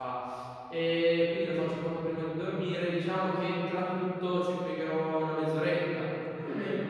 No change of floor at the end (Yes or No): No